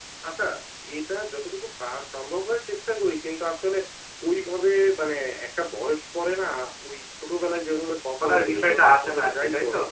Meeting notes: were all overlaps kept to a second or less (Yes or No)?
No